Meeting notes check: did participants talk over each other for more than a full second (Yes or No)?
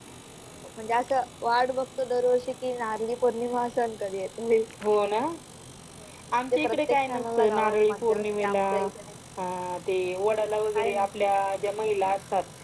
Yes